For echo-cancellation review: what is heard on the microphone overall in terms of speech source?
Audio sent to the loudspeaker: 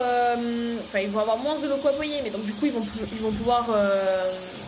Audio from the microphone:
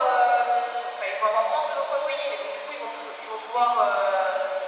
echo only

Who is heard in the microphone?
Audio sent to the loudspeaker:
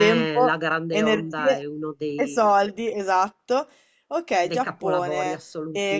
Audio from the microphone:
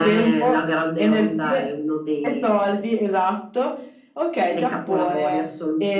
echo only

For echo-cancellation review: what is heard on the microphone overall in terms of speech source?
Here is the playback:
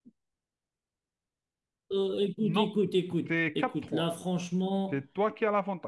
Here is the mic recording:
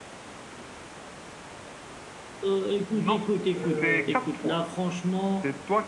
both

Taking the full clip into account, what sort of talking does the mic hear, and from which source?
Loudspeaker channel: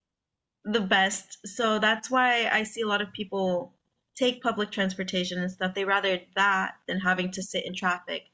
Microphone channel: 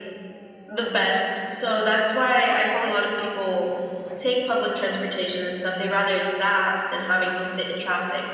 both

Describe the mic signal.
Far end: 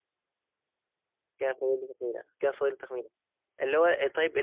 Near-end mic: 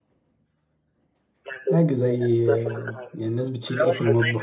both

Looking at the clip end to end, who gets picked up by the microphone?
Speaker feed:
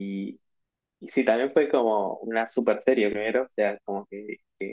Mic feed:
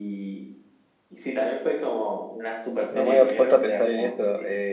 both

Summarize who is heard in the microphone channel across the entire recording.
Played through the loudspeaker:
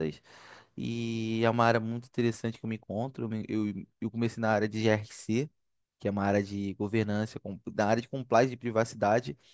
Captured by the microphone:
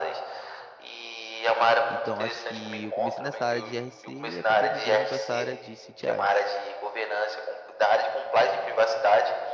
both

